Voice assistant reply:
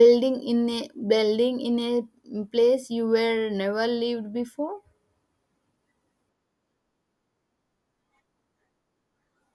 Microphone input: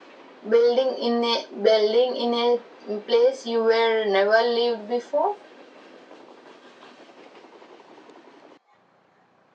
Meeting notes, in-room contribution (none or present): none